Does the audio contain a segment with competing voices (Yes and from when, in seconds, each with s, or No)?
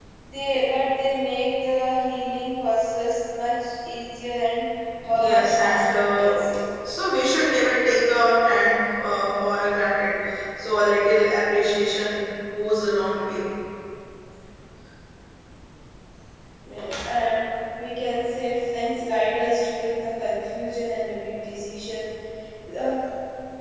Yes, from 5.1 s